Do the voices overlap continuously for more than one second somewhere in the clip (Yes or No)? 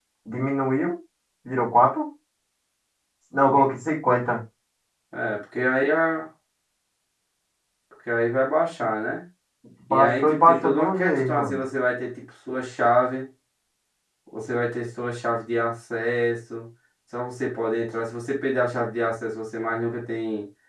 Yes